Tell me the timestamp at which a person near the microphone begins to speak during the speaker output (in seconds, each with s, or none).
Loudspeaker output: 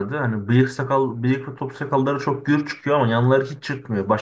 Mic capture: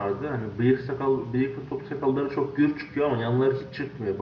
none